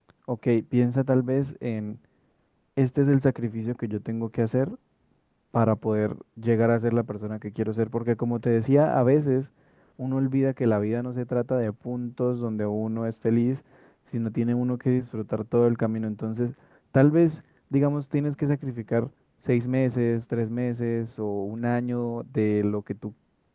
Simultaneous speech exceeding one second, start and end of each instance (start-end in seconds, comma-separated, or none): none